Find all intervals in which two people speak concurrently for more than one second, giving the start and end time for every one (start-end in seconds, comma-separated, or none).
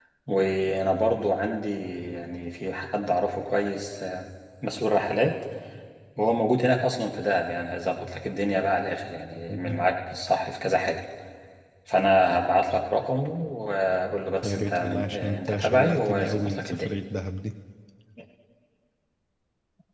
14.4-16.9